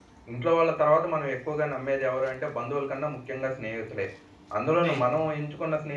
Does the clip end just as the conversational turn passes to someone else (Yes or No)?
No